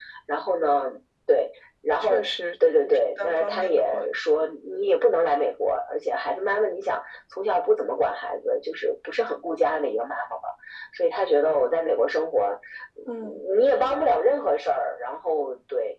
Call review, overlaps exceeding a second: present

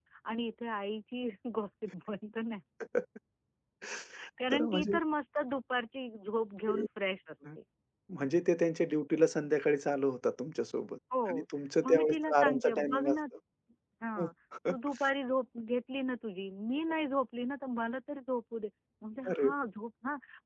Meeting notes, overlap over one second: present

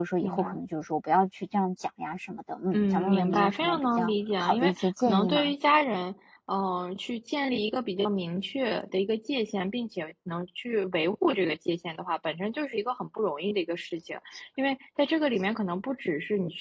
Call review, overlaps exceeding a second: present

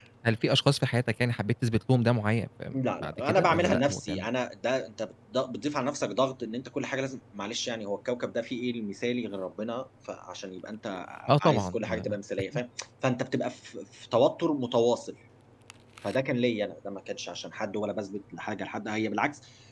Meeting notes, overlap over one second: present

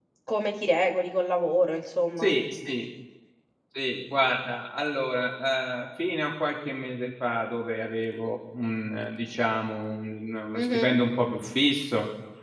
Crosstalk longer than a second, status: none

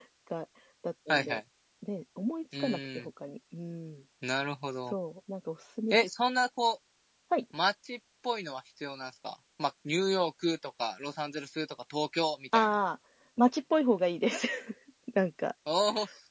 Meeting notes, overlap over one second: none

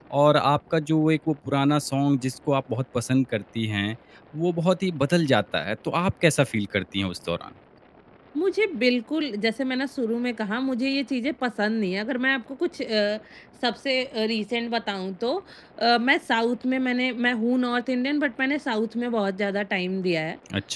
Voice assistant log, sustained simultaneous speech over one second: none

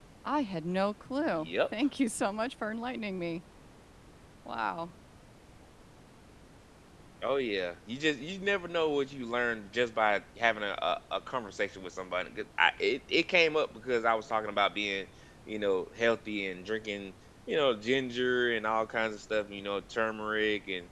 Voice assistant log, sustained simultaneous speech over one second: none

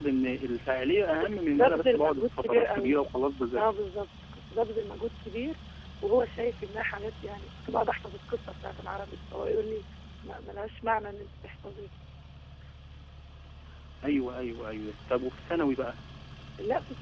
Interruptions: present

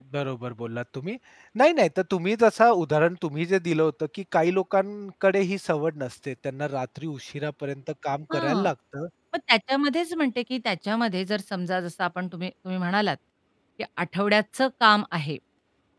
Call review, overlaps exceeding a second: none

